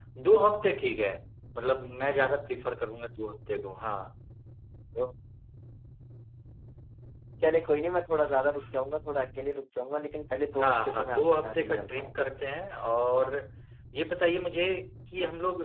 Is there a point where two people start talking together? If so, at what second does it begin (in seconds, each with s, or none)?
10.6 s